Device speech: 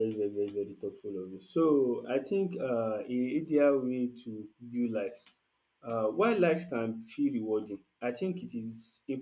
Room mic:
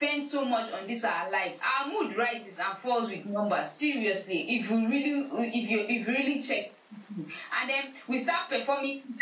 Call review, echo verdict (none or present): none